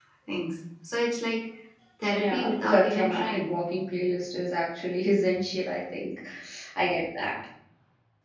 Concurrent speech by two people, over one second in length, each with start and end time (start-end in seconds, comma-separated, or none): 2.2-3.5